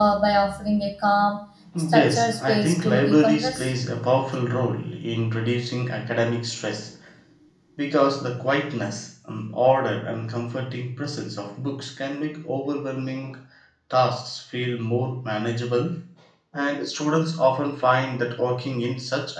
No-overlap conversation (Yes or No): No